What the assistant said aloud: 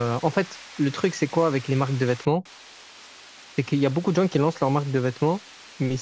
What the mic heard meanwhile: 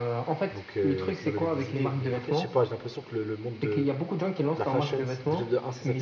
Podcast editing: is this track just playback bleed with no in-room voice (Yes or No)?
No